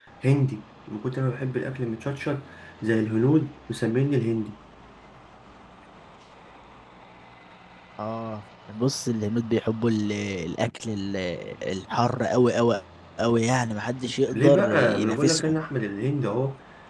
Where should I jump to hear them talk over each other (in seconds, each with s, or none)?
14.3 s